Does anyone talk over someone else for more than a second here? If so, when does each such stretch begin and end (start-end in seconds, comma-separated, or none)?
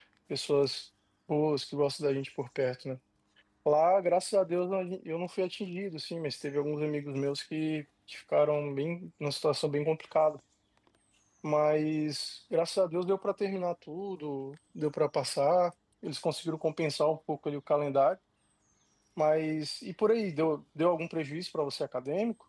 none